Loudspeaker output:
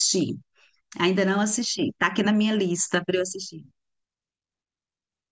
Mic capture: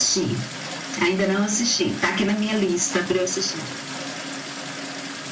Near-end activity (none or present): none